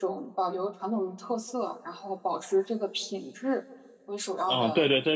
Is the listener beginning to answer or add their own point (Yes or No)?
Yes